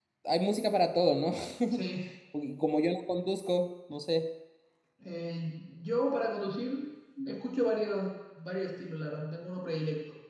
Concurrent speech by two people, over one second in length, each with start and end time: none

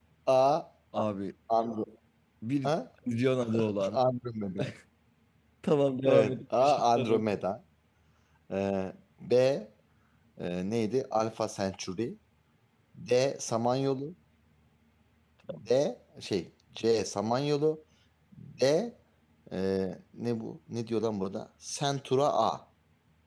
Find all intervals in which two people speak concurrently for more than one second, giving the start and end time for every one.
6.0-7.2

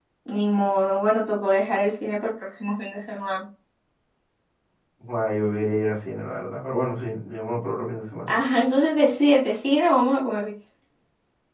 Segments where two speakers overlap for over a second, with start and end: none

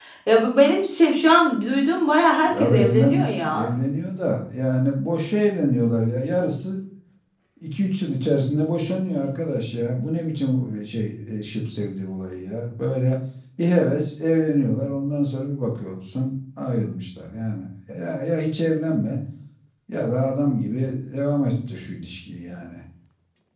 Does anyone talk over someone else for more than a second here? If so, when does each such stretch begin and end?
2.5-3.7

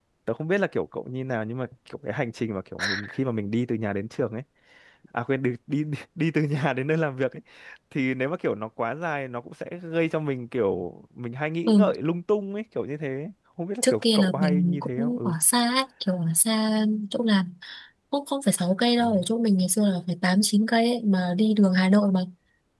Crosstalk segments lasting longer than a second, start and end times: 13.8-15.3

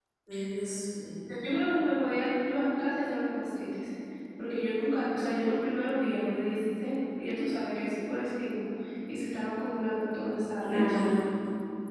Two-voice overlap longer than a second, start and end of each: none

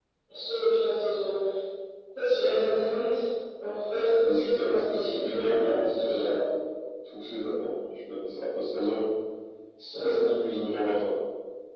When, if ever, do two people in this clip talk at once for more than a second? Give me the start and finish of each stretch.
4.2-6.3

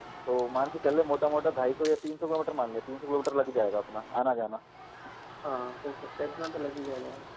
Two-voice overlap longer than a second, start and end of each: none

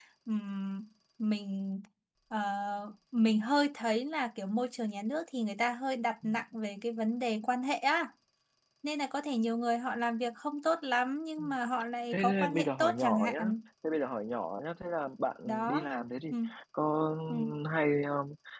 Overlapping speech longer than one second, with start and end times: 12.1-13.4

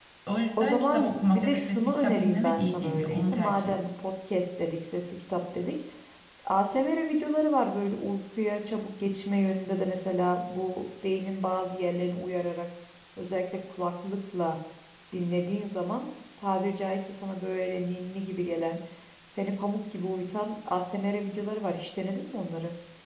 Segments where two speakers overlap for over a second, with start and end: 0.6-3.8

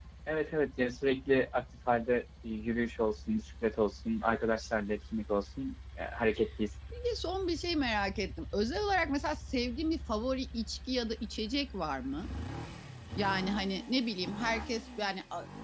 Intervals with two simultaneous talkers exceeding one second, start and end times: none

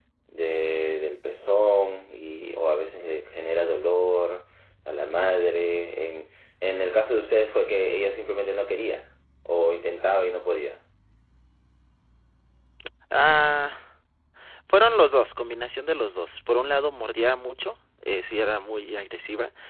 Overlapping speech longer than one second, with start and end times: none

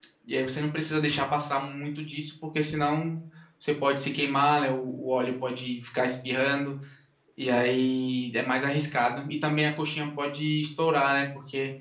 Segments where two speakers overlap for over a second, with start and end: none

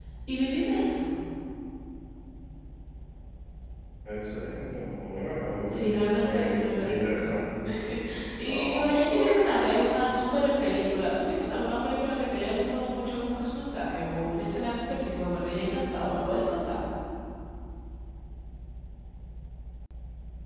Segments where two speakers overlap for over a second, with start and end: 5.7-7.2, 8.4-9.9

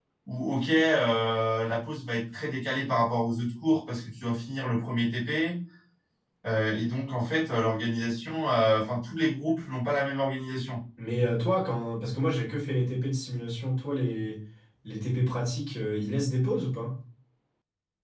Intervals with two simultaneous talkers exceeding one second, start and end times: none

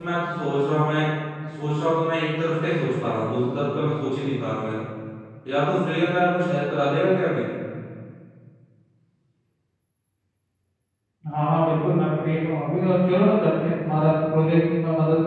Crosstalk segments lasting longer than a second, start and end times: none

